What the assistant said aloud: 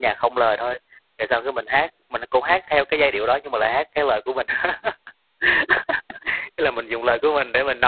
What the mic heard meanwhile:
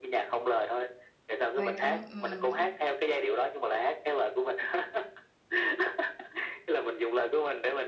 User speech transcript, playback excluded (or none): Quan tấm, ừm.